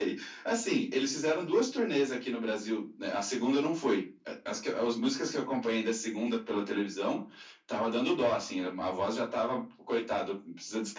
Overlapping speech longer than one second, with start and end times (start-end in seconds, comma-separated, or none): none